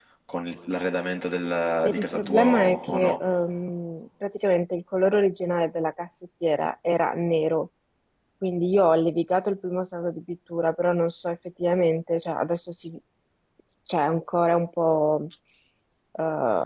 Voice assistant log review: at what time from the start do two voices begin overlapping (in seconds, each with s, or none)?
1.8 s